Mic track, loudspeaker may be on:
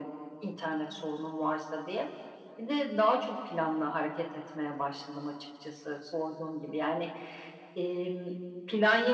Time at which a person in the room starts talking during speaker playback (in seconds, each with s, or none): none